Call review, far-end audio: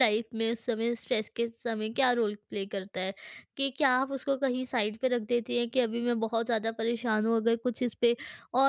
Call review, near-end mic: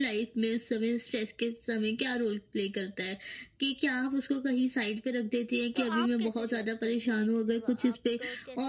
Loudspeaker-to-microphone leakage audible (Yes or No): Yes